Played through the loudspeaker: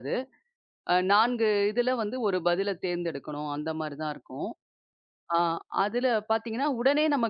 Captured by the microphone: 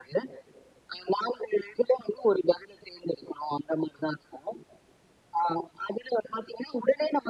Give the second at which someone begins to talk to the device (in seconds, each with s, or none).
none